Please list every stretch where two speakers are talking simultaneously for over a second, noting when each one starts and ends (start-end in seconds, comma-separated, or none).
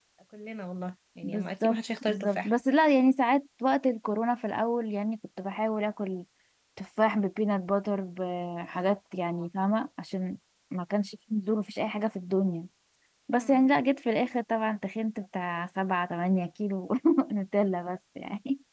1.2-2.5